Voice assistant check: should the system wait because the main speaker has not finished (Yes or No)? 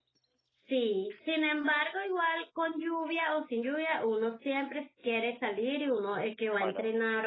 Yes